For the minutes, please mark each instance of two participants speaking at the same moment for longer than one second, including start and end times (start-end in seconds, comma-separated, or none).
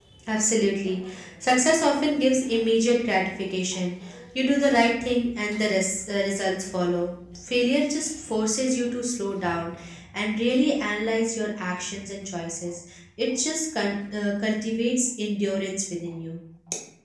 none